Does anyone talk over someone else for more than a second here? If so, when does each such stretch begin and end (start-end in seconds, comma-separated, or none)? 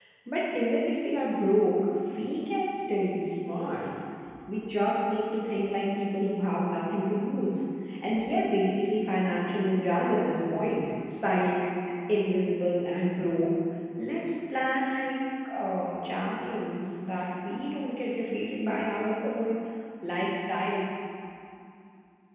none